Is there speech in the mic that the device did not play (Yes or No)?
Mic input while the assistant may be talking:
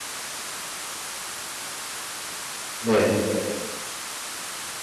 Yes